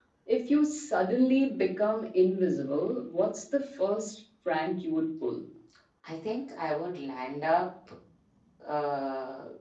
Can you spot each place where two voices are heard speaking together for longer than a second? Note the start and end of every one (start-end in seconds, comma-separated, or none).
none